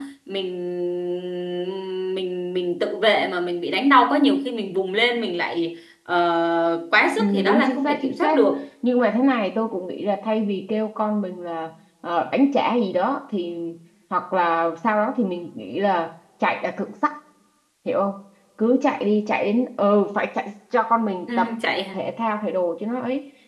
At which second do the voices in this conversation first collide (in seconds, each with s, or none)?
7.2 s